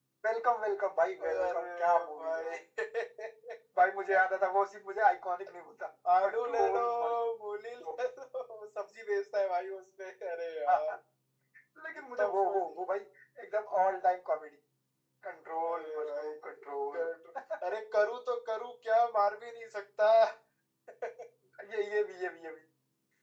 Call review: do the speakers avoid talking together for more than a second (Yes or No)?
No